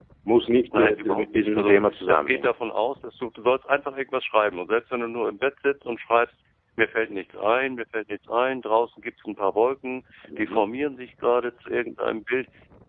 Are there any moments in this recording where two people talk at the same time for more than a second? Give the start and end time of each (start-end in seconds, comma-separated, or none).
0.7-2.5